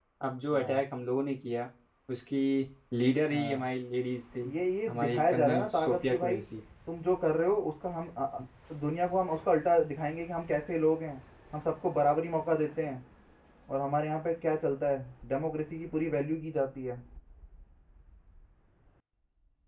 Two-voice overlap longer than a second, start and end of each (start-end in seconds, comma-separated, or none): 4.9-6.4